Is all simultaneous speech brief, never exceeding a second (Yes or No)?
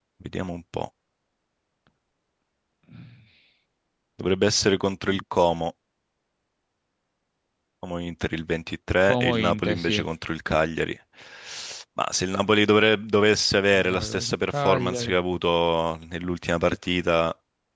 No